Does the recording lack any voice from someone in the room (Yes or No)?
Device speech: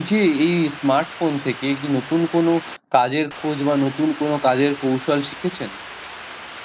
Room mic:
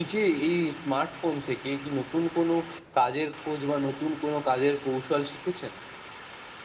Yes